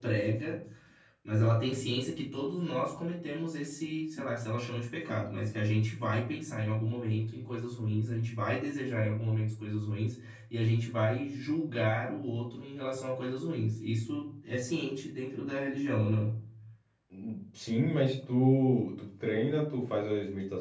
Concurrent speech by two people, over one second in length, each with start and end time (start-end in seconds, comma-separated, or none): none